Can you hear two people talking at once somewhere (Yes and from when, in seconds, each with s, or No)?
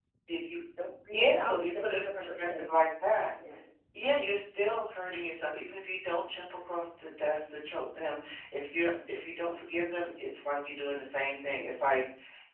Yes, from 1.1 s